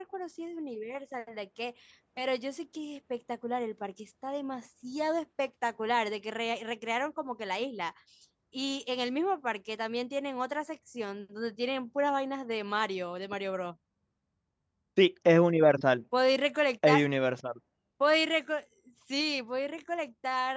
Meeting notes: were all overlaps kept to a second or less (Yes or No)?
Yes